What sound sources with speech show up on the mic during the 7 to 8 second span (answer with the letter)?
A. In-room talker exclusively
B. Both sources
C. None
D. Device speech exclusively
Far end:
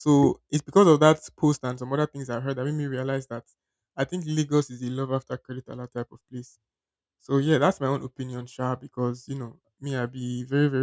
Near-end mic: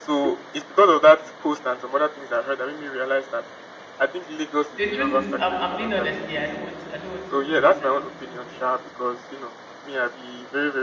B